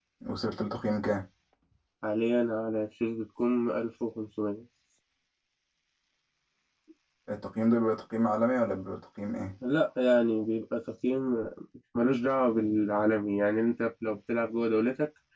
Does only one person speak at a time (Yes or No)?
Yes